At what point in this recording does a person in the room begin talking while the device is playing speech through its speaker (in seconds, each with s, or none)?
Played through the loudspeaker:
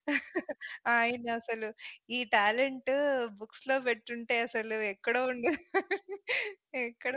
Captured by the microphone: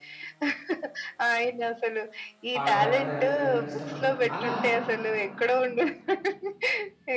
2.6 s